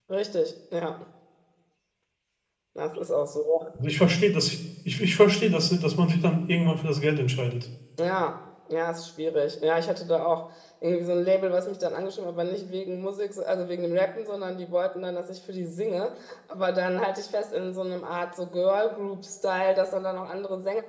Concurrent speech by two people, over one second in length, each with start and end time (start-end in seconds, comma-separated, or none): none